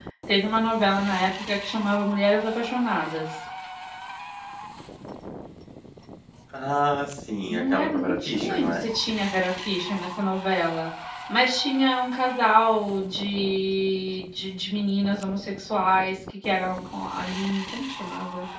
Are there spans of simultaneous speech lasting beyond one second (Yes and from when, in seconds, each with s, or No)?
Yes, from 7.5 s